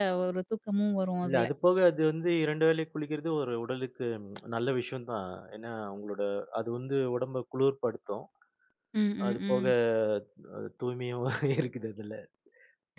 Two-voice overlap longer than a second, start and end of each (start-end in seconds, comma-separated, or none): none